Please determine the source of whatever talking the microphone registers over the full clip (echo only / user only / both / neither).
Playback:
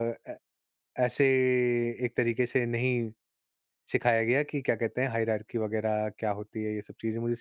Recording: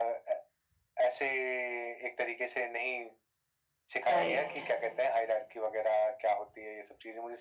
both